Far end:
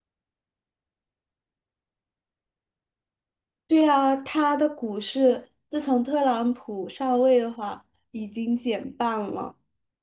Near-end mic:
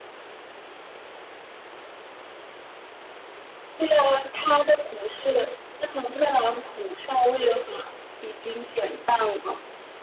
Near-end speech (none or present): none